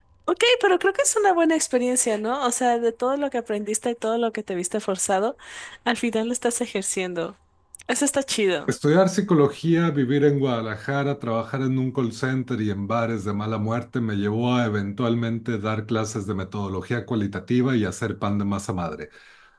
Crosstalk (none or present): none